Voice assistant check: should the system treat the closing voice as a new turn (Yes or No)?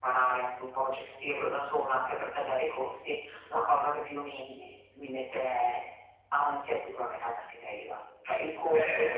Yes